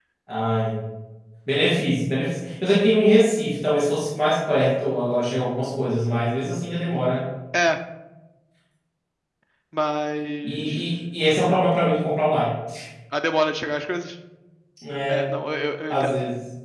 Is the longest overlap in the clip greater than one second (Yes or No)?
No